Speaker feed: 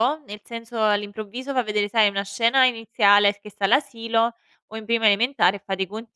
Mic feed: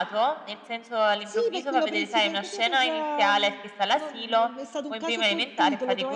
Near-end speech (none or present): present